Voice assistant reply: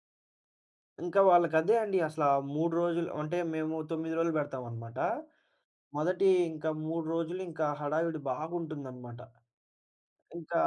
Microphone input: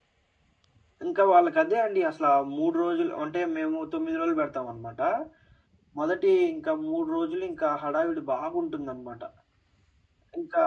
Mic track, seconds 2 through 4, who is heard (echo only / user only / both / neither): echo only